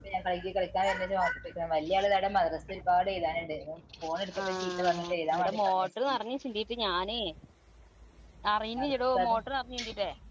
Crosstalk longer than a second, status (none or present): present